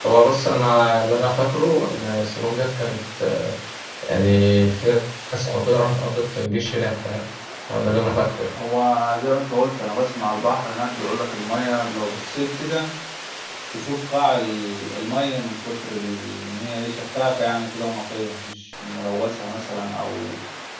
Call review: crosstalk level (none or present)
none